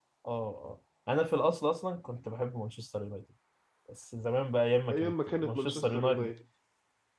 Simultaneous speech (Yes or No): Yes